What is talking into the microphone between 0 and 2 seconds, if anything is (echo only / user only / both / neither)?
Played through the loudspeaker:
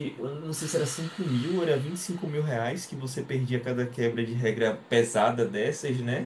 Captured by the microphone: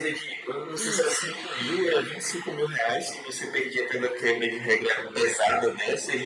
both